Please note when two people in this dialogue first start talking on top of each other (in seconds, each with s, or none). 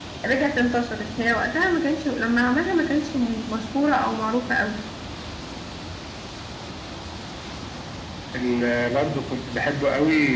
none